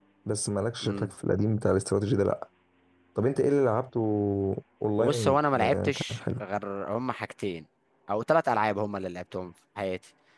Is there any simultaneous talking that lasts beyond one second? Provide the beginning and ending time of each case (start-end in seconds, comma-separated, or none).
5.0-6.2